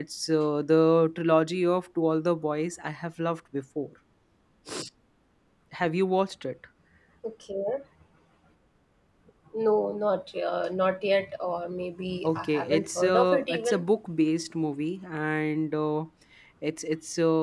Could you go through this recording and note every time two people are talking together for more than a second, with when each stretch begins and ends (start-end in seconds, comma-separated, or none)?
12.3-13.8